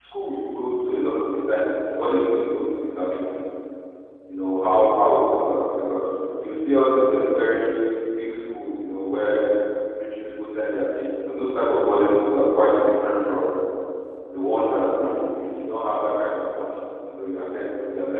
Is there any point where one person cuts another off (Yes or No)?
No